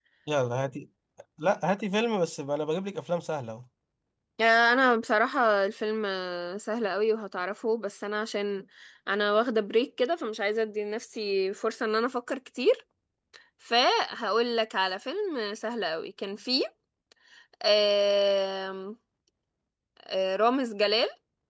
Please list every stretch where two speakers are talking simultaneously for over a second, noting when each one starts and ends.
none

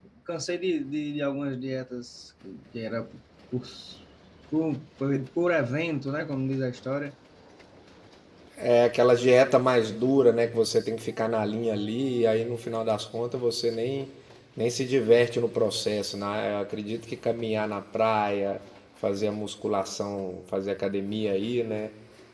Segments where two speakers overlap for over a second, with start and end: none

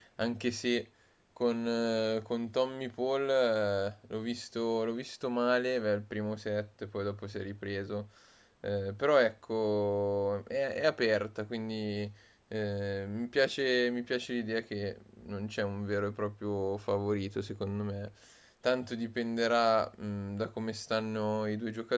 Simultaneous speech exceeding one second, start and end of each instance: none

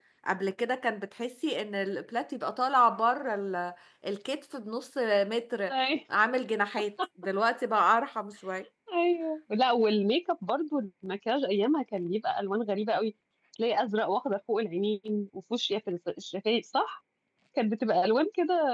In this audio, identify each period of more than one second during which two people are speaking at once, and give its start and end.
none

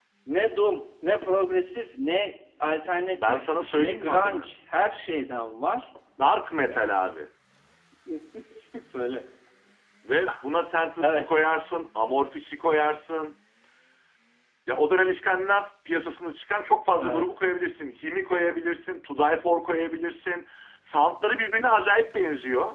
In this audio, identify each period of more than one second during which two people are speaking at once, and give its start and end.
3.1-4.5

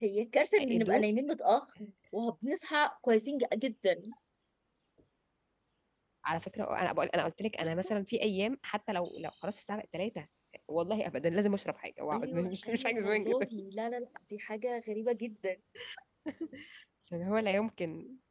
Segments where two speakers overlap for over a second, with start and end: 12.1-13.5

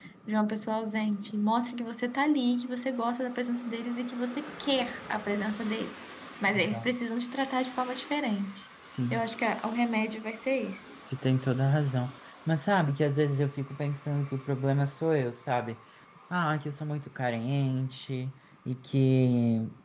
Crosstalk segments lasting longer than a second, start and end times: none

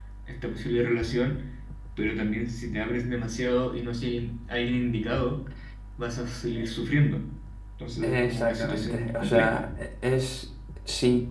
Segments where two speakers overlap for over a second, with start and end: 8.0-9.6

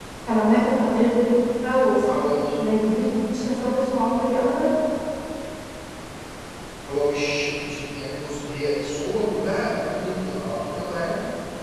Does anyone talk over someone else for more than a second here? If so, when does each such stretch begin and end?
none

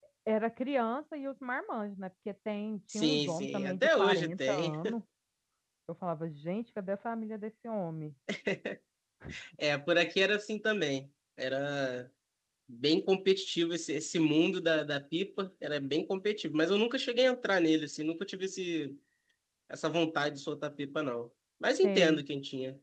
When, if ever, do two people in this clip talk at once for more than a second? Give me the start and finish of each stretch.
2.9-4.7

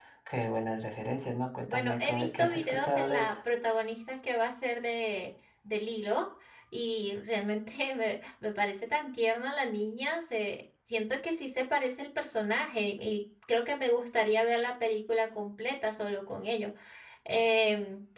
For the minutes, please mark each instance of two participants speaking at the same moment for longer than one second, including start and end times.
1.7-3.4

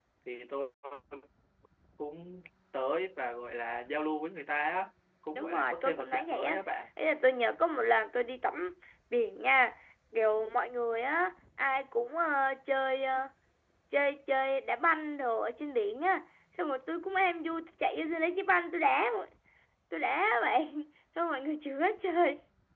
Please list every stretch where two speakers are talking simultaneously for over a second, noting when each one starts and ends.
5.3-6.6

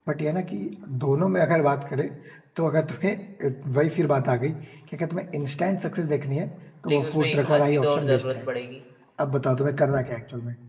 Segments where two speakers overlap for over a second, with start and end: 6.9-8.5

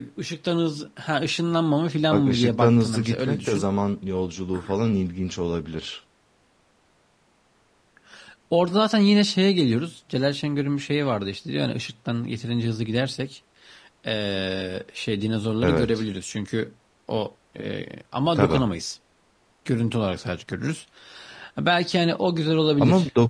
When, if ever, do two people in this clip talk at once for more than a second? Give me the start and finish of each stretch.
2.1-3.6

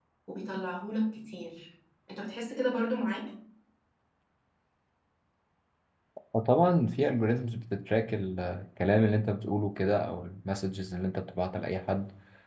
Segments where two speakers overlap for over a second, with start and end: none

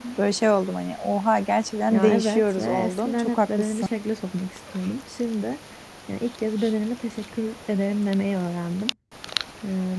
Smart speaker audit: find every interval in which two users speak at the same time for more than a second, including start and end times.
1.9-3.9

